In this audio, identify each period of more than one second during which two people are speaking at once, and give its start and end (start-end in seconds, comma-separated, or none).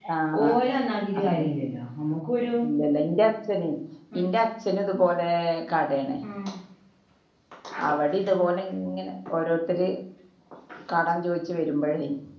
none